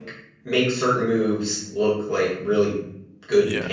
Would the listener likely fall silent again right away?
Yes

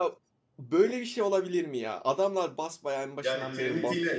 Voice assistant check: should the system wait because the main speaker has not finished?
No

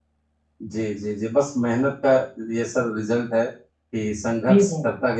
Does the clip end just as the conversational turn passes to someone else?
No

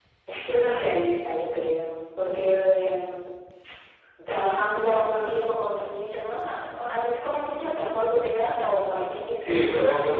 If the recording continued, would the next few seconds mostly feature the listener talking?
Yes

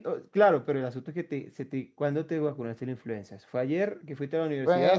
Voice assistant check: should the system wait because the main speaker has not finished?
No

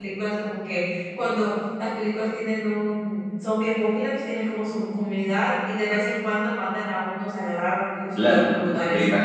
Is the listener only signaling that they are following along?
No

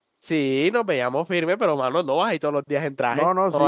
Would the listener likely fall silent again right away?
No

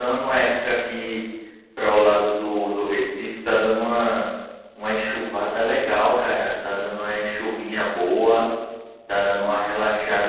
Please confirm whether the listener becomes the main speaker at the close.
No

